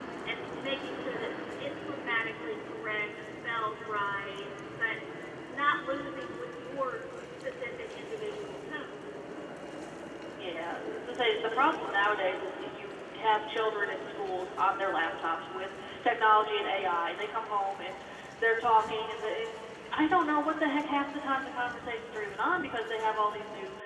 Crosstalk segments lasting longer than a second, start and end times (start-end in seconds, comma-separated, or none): none